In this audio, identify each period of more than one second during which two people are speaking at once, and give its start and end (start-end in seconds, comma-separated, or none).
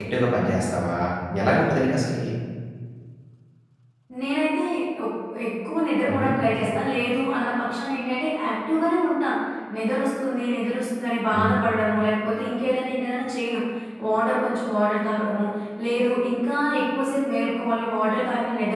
none